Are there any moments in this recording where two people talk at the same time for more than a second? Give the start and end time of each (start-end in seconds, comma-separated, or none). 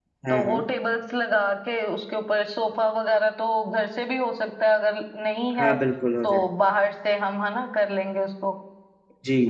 none